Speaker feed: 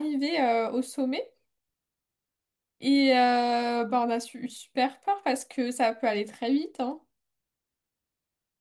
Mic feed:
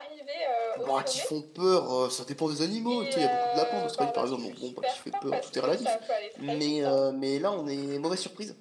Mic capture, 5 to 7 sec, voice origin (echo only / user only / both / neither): both